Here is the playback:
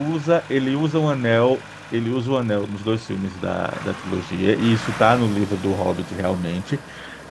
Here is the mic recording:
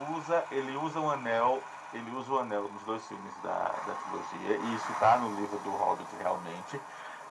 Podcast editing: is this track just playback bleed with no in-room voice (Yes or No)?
Yes